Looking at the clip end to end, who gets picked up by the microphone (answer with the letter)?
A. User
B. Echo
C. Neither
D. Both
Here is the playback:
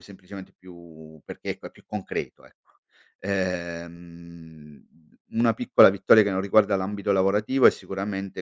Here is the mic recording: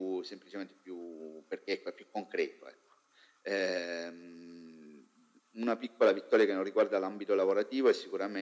B